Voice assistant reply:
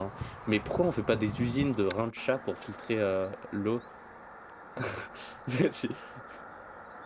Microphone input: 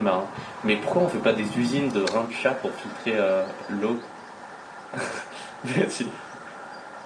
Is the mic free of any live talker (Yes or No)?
Yes